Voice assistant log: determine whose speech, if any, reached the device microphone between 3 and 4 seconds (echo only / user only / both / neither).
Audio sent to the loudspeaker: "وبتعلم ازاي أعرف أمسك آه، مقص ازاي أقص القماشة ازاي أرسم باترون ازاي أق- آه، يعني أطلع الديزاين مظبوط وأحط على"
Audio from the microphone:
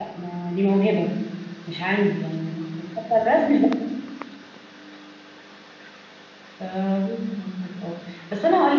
user only